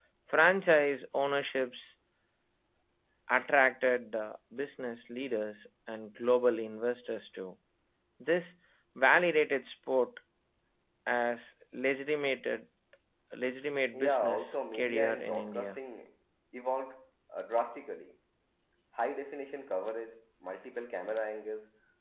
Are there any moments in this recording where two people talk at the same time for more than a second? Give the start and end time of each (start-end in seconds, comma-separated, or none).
13.9-15.8